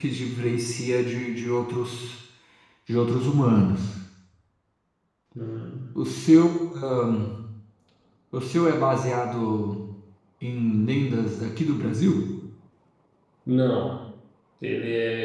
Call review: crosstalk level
none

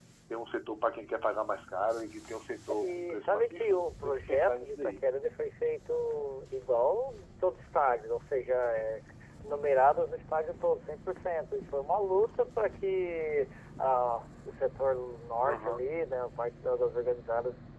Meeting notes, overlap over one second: present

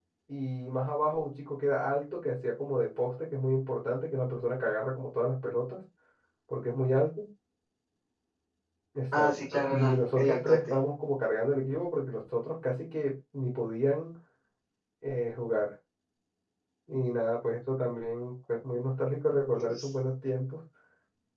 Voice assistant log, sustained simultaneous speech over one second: present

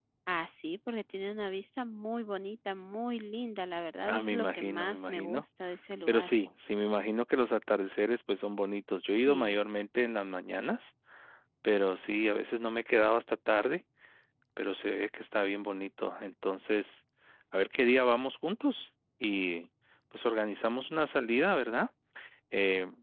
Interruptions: present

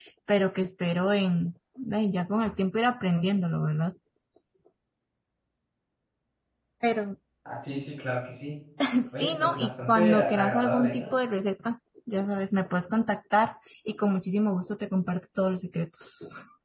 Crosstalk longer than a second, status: present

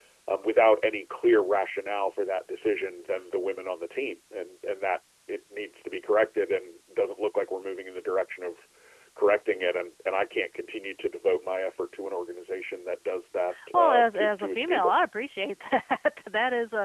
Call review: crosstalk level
present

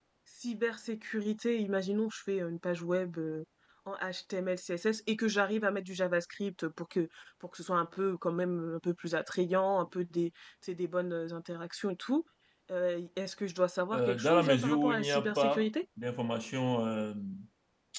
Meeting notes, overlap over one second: present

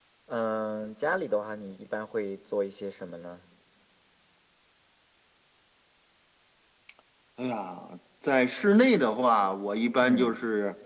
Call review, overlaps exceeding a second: none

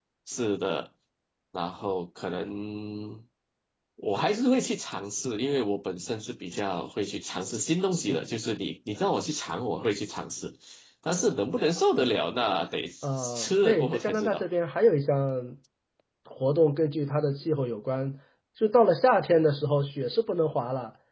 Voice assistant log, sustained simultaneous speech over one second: present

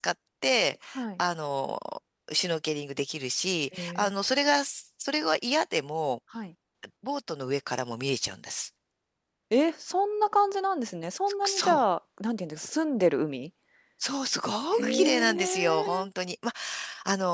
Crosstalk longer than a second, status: present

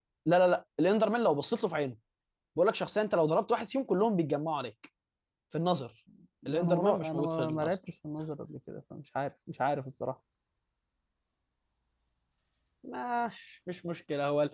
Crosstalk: present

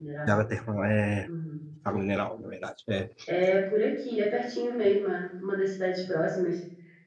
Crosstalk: none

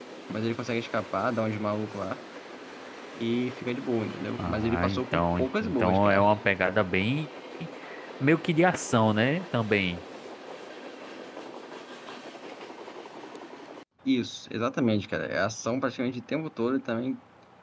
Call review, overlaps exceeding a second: present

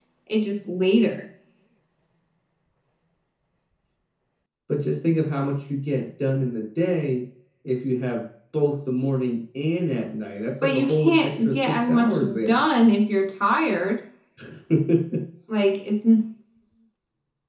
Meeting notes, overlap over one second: present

